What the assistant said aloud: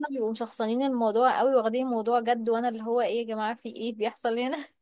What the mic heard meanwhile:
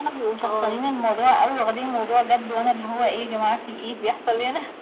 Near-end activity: present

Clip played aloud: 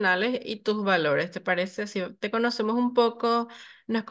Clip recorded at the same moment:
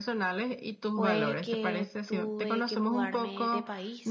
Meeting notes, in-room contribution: present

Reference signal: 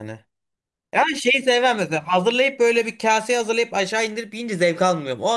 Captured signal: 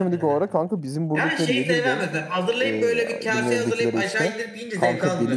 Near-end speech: present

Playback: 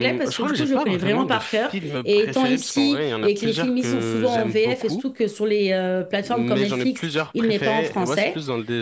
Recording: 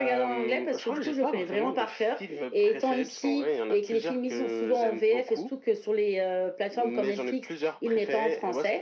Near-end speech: none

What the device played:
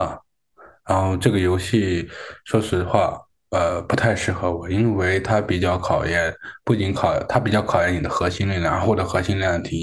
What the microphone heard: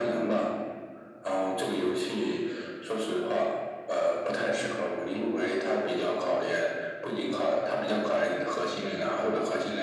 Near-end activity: none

